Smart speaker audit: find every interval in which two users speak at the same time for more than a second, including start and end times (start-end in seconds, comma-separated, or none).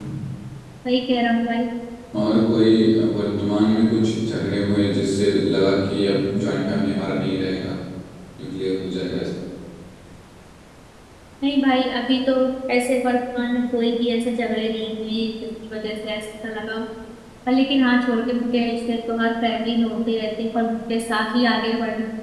none